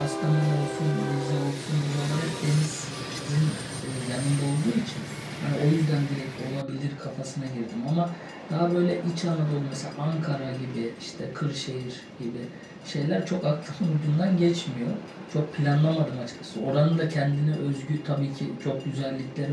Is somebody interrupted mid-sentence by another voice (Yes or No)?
No